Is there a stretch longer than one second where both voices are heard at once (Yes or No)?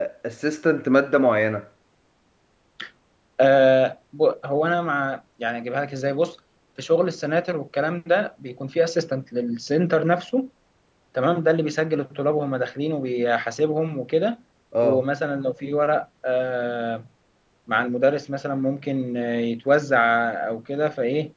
No